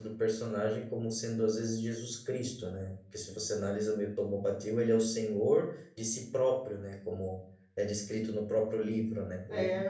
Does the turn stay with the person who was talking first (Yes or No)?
No